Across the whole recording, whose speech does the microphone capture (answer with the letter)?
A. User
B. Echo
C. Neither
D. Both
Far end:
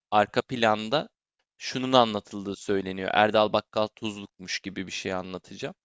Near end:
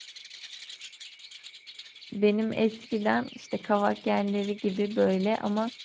A